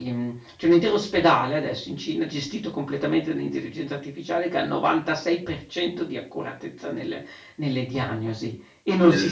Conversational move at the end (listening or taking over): listening